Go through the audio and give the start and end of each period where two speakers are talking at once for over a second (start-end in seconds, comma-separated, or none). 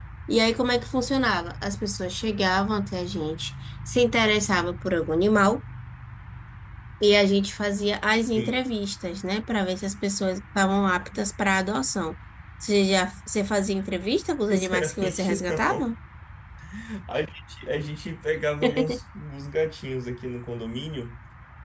14.5-15.9